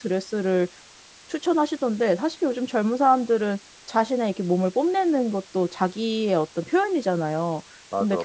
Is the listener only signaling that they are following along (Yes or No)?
Yes